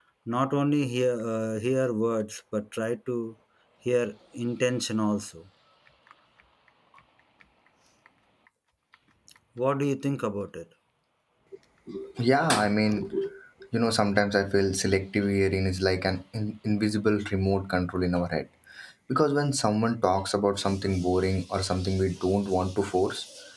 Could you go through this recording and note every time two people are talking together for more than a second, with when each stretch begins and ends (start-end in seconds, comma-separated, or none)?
none